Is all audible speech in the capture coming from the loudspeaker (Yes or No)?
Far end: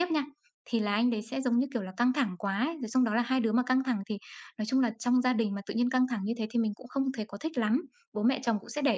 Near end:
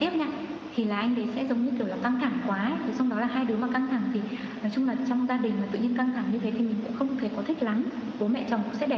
Yes